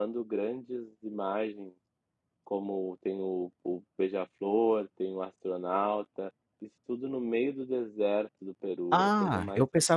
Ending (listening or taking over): taking over